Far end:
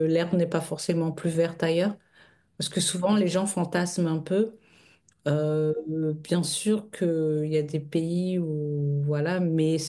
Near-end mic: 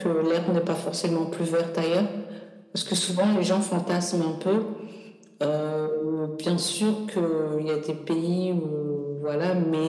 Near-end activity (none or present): none